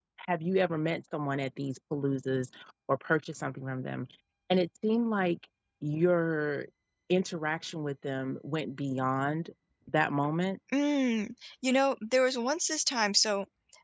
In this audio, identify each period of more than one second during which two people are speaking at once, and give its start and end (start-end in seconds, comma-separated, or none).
none